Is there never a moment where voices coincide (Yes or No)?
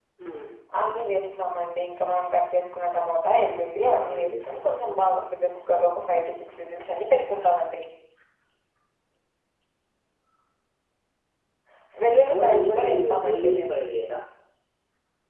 No